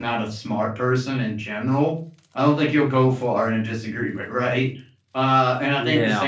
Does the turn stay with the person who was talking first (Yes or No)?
Yes